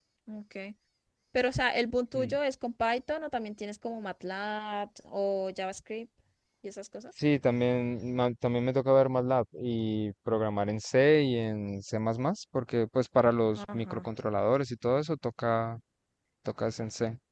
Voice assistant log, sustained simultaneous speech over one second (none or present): none